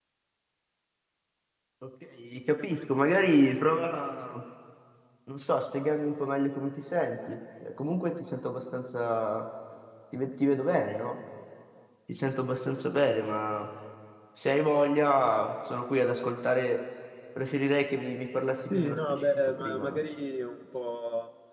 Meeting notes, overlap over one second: present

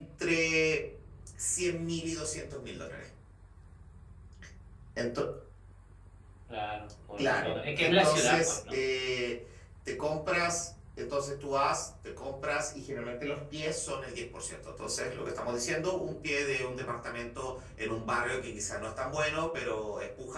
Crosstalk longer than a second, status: present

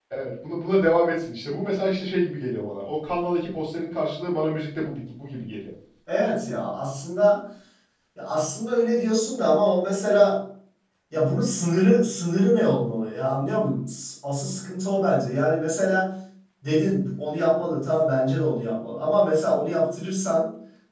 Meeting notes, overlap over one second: none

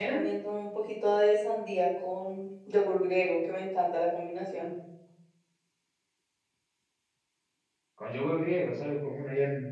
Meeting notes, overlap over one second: none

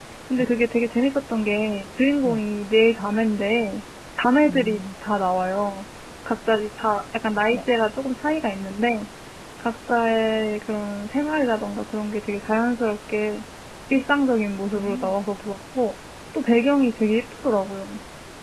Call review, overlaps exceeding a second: none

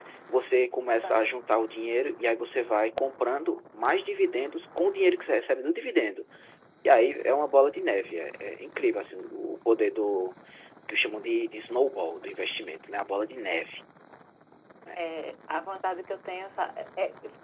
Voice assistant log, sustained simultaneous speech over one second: none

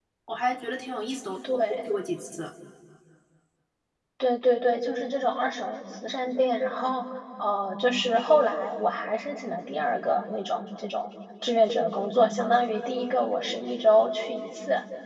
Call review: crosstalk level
none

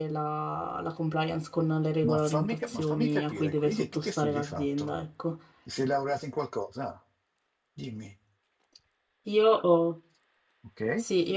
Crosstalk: present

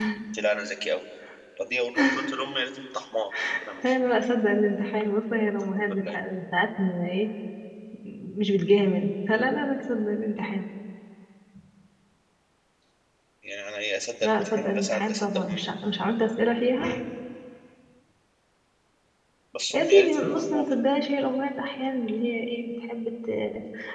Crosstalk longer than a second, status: present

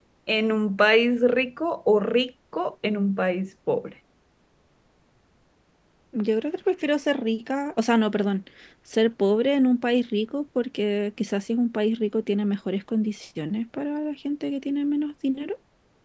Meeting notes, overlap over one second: none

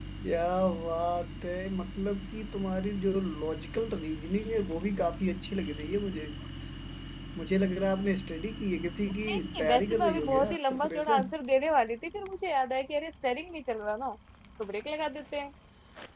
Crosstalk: present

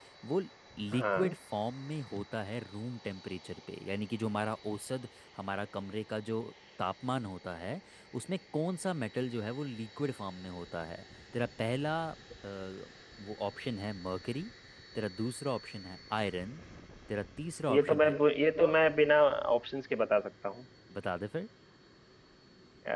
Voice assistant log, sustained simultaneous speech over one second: none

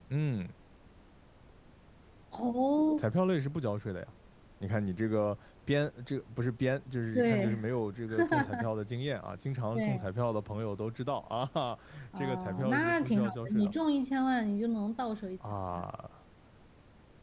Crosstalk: present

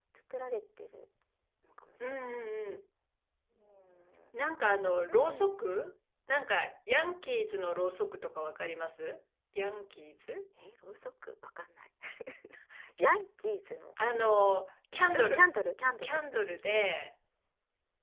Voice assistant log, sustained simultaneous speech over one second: none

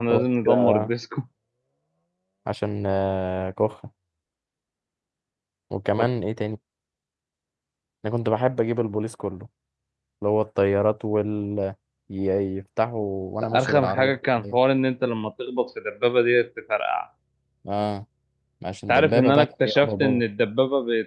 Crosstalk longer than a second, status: present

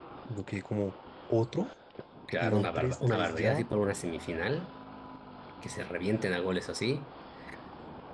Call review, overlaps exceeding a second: present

